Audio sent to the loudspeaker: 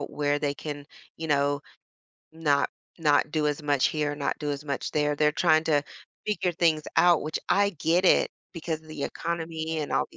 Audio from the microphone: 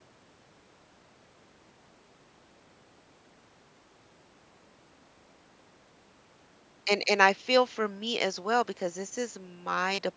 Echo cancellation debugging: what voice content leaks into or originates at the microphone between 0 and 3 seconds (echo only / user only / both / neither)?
neither